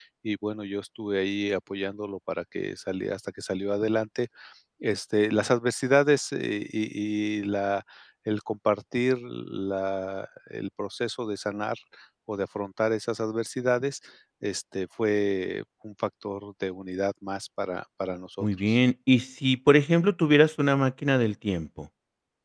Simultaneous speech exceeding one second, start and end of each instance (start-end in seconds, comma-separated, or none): none